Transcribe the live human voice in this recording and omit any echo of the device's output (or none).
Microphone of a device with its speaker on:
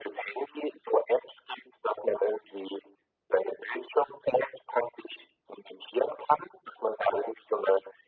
none